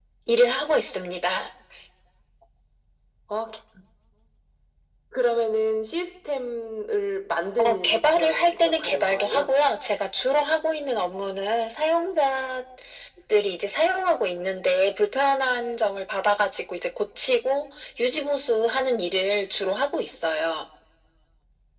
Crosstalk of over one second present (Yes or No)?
Yes